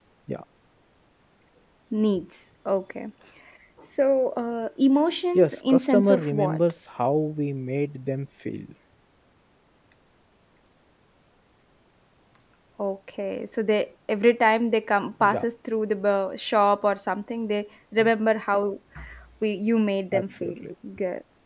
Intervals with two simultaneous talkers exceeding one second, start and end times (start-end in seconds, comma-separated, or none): 5.4-6.6